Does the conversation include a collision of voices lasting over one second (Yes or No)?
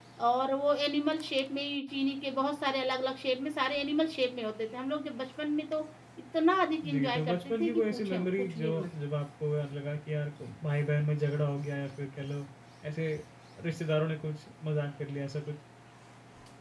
Yes